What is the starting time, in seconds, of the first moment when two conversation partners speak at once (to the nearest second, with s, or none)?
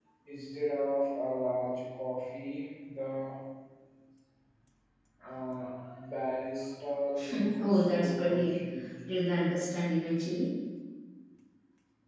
7 s